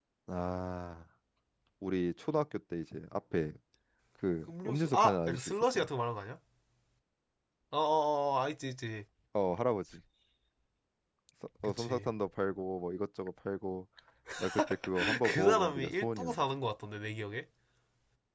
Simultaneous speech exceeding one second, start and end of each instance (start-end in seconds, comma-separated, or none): 4.5-5.9, 15.2-16.4